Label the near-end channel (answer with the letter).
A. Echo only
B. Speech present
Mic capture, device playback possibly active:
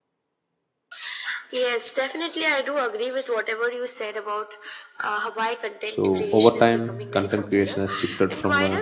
B